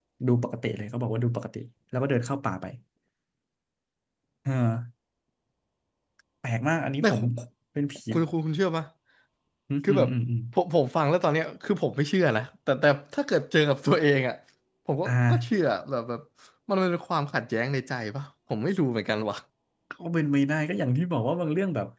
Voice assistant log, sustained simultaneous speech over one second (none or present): none